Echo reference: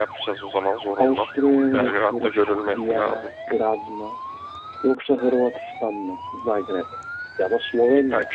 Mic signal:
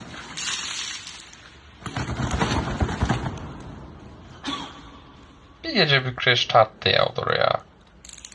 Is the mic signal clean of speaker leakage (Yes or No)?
Yes